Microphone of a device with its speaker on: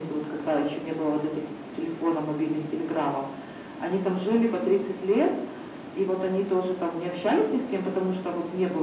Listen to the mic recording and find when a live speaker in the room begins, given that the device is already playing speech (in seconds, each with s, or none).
none